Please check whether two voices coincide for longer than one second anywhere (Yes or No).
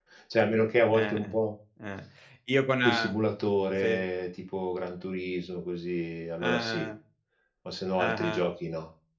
No